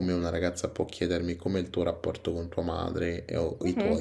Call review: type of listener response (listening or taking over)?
taking over